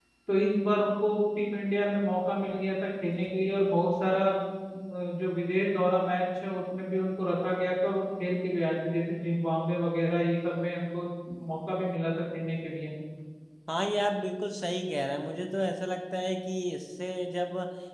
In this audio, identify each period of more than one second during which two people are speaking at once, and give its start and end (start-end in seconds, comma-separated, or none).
none